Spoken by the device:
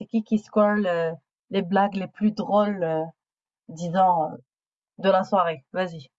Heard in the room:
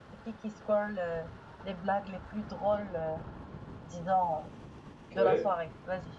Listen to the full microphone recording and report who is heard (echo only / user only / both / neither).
both